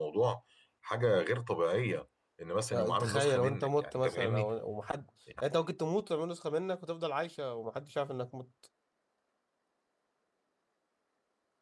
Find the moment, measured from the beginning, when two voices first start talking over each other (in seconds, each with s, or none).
2.7 s